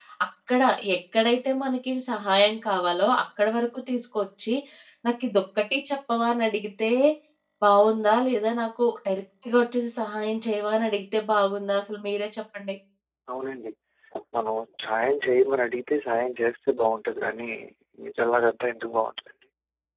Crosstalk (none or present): none